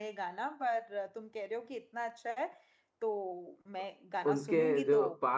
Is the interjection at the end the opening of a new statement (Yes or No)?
Yes